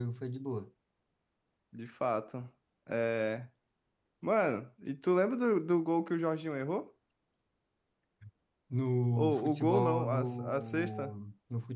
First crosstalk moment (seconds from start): 9.2 s

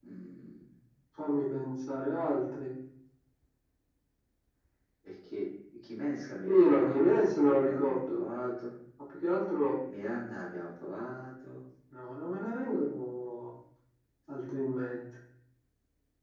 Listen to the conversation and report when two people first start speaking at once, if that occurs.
6.5 s

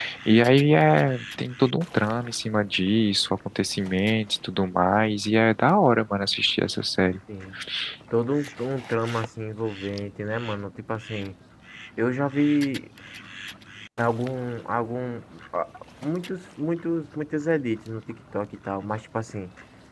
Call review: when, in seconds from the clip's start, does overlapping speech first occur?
none

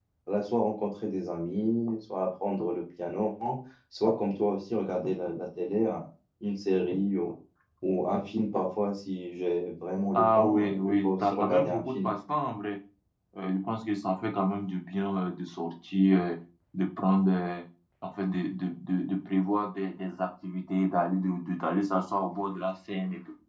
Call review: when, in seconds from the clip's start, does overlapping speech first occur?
10.1 s

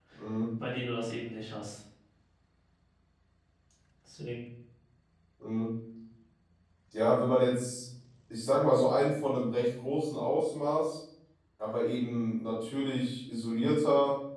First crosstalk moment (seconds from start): none

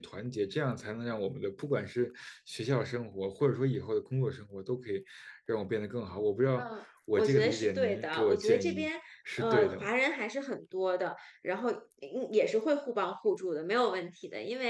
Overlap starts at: 7.2 s

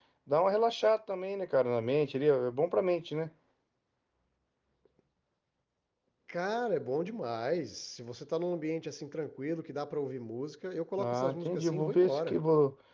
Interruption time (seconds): 11.0 s

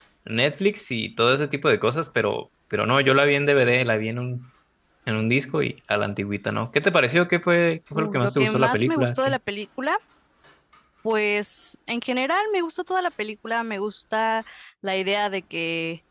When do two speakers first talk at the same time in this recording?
7.9 s

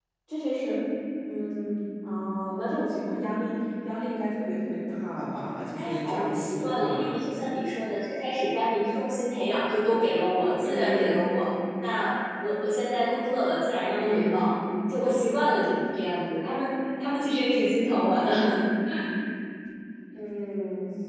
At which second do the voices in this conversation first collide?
5.8 s

